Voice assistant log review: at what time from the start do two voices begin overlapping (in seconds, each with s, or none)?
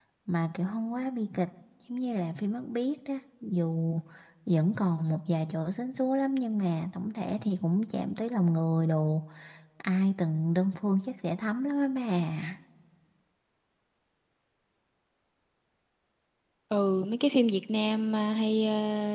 none